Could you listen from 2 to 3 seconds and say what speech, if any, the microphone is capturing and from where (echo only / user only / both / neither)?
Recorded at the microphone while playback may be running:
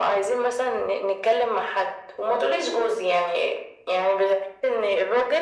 echo only